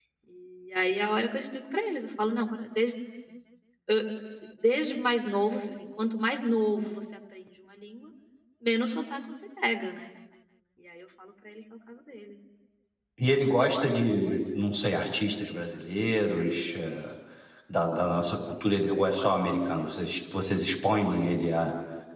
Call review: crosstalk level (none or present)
none